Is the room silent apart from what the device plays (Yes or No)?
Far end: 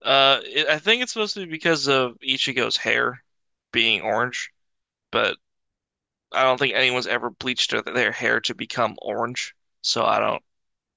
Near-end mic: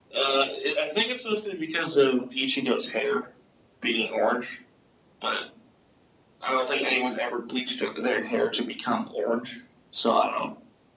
Yes